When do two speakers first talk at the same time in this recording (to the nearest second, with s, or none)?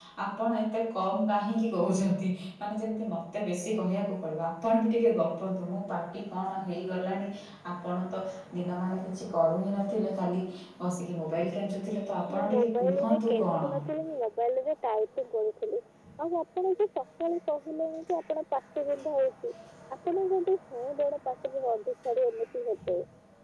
12 s